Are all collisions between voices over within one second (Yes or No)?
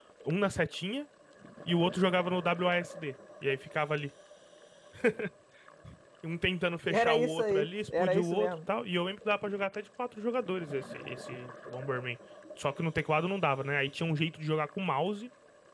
No